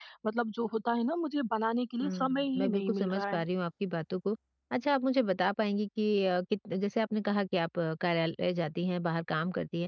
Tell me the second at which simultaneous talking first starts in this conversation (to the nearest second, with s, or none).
2 s